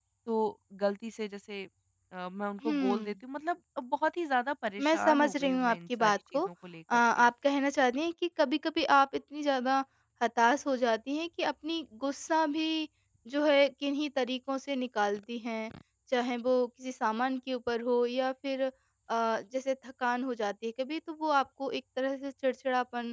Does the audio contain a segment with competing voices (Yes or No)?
Yes